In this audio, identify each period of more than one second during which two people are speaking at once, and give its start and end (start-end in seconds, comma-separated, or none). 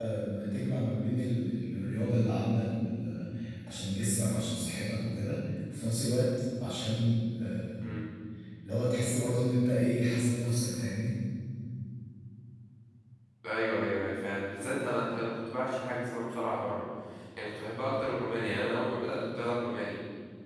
none